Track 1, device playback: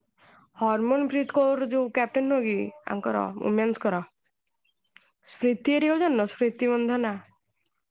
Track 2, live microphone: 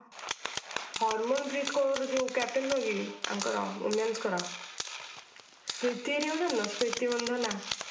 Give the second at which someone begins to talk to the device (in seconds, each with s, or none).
none